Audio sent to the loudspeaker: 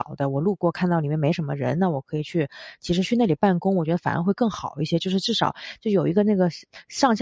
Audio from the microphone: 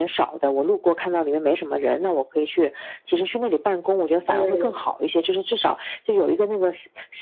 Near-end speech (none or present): present